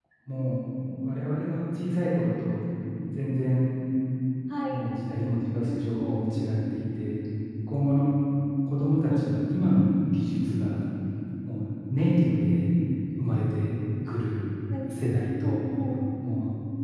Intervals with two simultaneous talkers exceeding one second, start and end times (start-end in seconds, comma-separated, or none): none